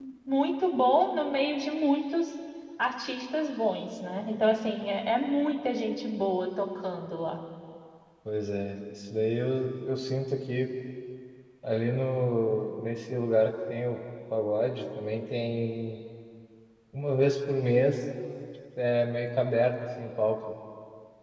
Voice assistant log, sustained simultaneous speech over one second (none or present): none